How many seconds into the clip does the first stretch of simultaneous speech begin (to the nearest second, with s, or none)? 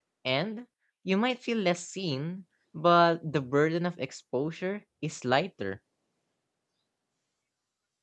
none